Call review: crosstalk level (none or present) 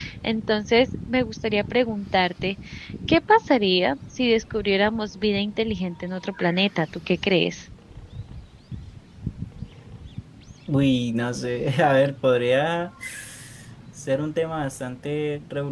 none